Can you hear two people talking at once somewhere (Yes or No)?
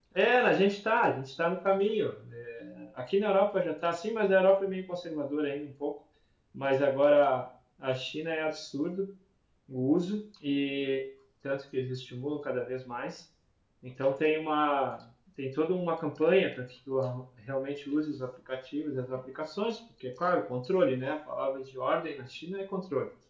No